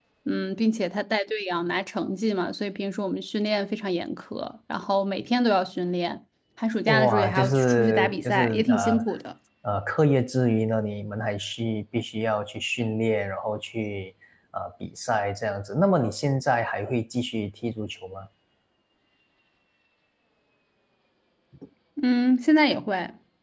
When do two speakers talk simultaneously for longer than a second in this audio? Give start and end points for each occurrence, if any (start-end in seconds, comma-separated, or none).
6.9-9.0